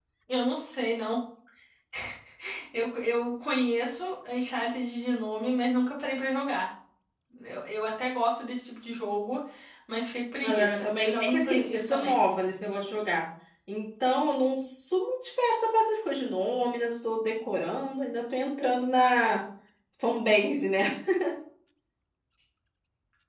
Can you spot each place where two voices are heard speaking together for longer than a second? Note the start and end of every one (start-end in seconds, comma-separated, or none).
10.4-12.1